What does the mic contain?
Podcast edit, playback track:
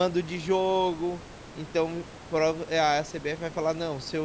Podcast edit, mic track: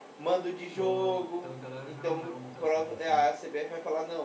both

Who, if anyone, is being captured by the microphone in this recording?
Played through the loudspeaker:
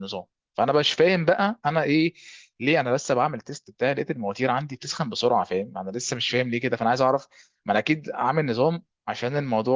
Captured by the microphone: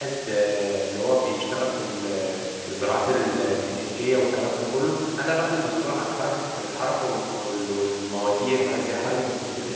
user only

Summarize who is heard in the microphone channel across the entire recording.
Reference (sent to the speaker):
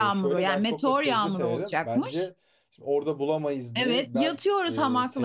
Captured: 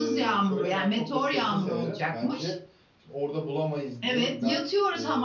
echo only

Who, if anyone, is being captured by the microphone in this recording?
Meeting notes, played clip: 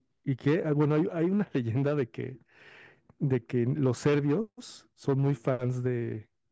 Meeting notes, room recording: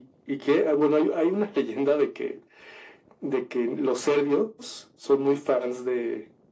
echo only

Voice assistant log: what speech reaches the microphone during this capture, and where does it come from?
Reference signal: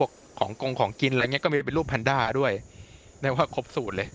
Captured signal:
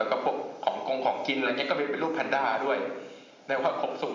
echo only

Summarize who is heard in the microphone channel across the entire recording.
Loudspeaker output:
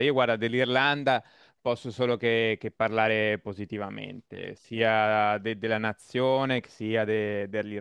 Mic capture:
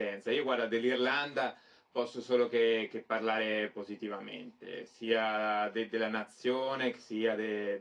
echo only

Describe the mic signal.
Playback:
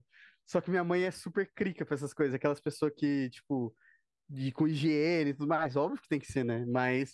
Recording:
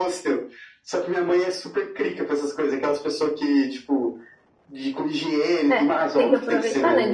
both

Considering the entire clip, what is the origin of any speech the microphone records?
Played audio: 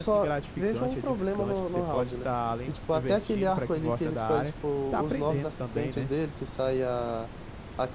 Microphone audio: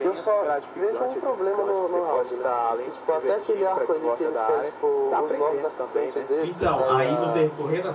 both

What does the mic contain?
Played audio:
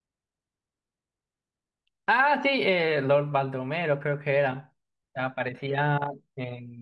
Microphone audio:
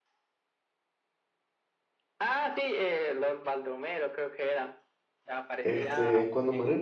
both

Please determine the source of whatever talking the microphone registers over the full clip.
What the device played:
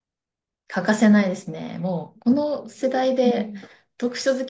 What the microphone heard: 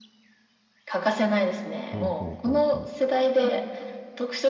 both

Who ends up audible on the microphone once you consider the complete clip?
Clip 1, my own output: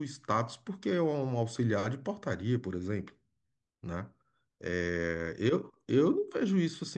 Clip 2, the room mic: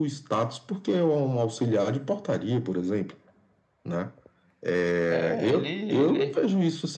both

